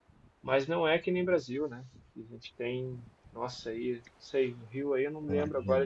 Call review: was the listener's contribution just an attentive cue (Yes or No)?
Yes